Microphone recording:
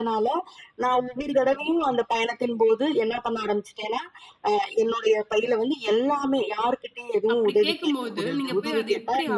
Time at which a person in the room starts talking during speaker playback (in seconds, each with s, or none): 7.3 s